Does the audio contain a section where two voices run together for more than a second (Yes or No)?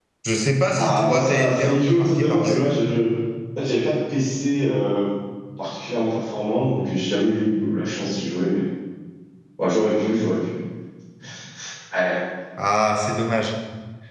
Yes